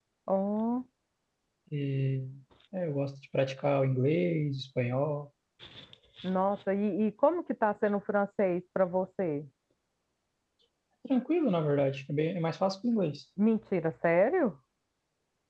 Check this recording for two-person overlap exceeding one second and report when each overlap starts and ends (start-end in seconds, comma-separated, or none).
none